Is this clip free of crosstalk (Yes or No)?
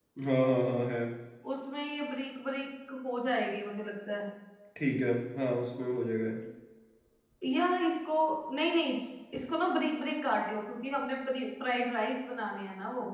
Yes